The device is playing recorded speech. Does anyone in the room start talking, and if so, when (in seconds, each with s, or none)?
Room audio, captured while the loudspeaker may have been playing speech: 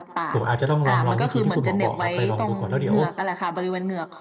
0.3 s